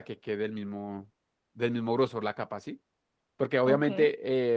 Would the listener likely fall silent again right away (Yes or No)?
Yes